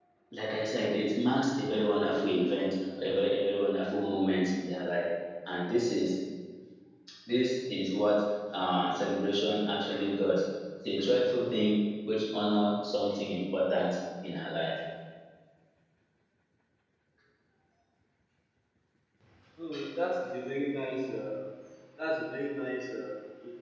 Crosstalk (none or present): none